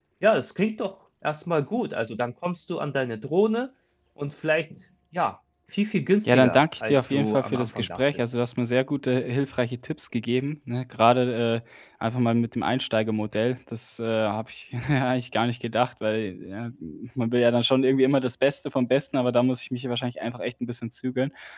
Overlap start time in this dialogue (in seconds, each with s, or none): 6.2 s